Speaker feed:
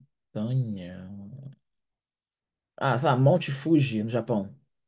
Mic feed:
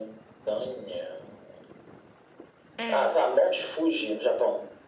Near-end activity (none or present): present